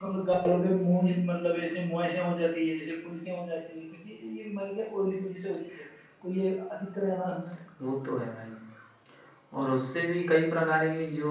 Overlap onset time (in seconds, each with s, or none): none